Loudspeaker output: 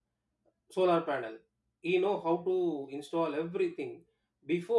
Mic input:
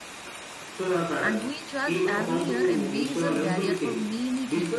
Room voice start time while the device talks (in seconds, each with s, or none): 1.2 s